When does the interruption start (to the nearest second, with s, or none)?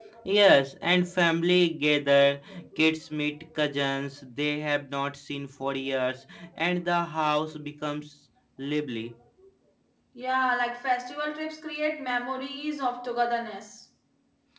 none